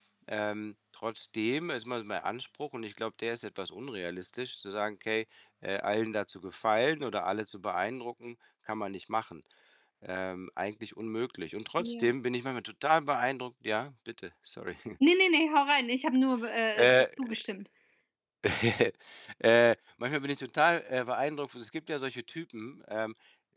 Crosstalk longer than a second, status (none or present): none